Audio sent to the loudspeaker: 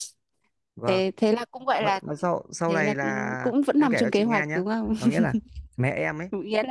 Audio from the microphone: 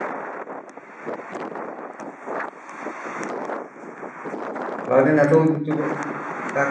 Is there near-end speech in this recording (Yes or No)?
Yes